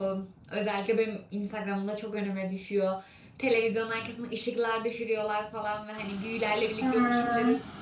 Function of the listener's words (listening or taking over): listening